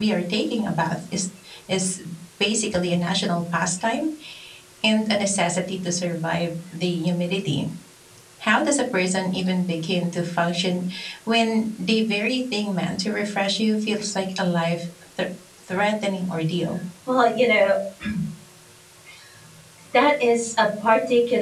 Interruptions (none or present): none